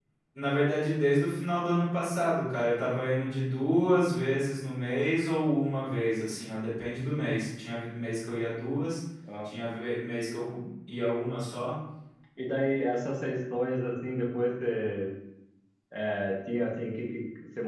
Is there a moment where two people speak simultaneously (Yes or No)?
No